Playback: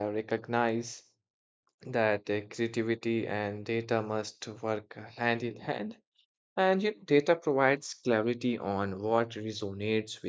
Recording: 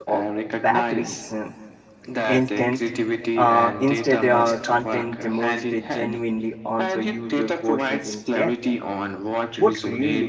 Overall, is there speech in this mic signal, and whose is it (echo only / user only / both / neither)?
both